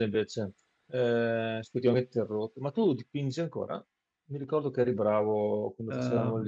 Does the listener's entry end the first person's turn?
Yes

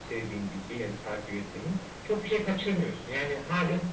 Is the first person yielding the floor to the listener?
No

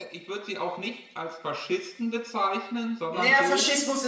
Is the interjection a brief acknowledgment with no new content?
No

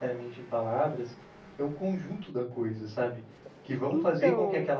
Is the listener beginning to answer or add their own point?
No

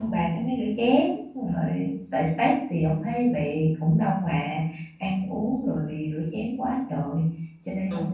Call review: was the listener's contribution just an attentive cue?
No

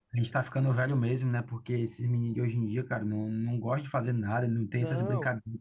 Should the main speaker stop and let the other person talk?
No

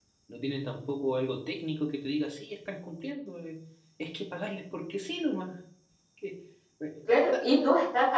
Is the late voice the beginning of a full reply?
Yes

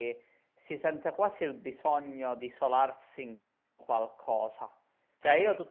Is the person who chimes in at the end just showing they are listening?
Yes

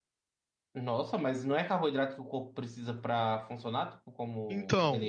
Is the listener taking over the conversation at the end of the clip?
Yes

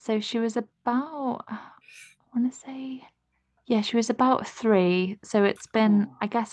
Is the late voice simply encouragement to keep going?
Yes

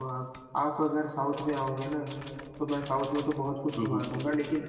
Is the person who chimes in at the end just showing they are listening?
Yes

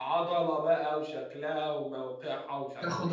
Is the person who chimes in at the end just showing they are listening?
No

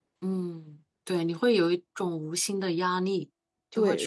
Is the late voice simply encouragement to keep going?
No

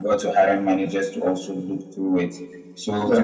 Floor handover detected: No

